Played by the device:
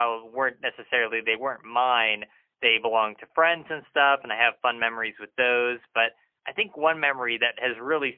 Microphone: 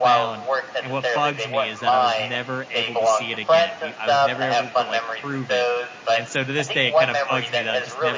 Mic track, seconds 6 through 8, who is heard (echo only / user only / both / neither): both